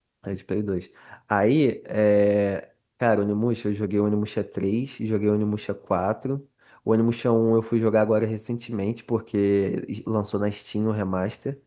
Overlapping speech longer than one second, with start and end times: none

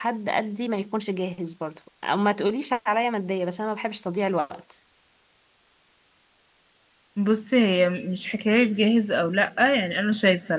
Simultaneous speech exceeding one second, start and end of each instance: none

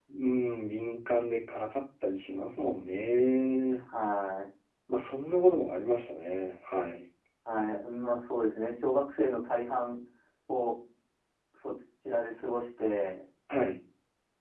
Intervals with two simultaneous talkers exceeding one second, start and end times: none

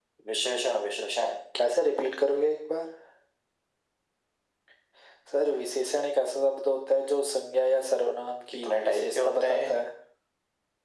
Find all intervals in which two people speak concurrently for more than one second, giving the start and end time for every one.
8.5-9.8

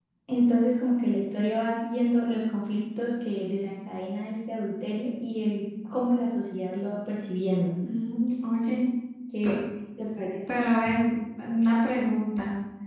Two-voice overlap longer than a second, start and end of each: none

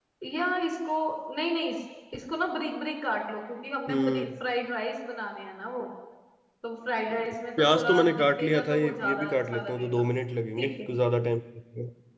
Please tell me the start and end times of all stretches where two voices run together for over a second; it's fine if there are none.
7.6-10.1

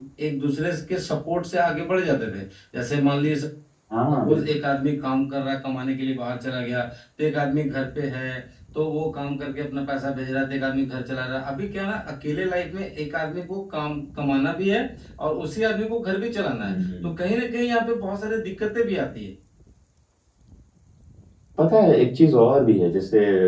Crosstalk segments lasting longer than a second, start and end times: none

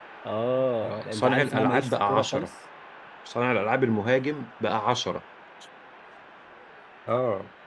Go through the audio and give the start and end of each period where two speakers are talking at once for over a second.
0.8-2.5

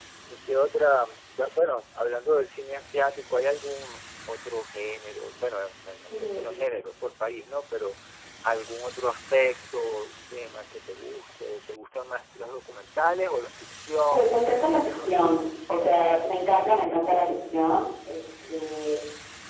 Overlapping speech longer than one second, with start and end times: 14.1-15.5

